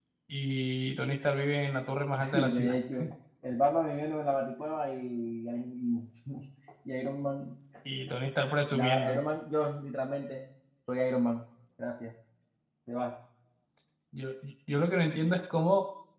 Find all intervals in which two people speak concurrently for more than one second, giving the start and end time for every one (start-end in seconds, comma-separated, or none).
none